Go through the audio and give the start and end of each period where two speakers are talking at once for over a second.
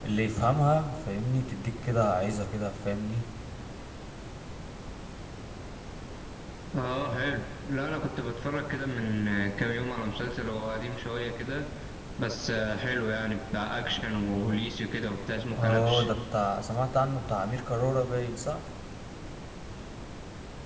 none

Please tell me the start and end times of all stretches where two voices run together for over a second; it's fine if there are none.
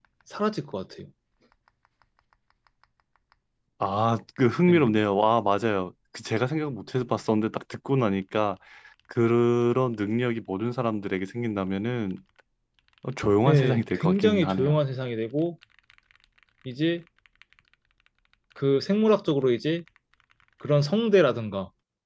13.5-14.8

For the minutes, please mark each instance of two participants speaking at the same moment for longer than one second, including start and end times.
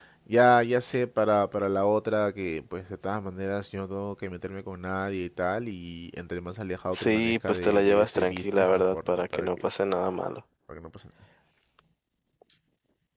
6.9-9.7

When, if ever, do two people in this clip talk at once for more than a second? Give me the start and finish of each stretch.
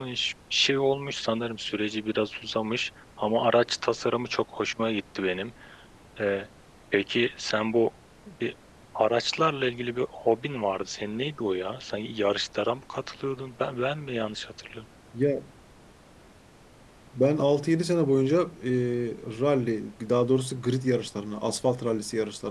none

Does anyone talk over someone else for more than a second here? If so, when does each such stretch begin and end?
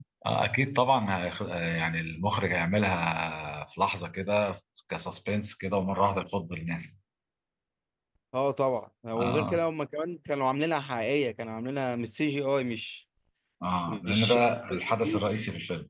13.9-15.3

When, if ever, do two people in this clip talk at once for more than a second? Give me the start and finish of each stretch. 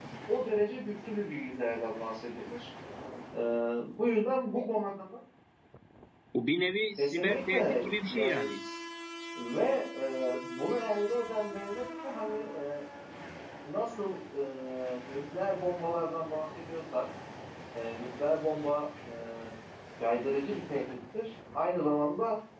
7.0-8.6

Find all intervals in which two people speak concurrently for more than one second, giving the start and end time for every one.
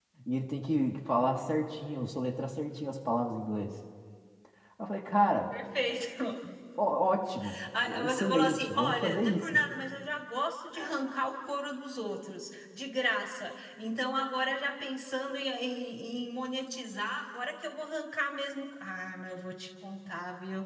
8.0-9.5

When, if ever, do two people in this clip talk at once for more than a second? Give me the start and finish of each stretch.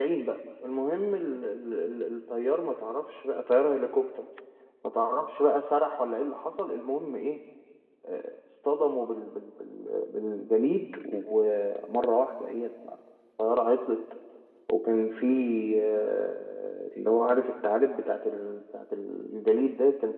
none

